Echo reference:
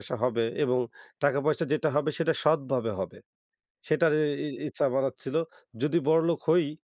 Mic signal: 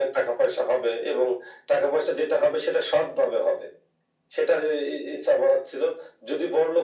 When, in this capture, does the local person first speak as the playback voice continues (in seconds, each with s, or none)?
none